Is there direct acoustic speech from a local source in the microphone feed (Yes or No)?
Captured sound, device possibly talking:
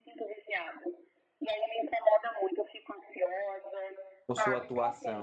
Yes